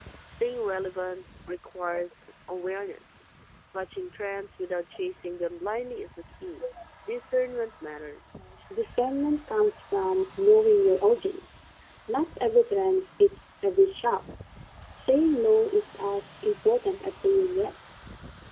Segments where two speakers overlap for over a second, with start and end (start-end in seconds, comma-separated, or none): none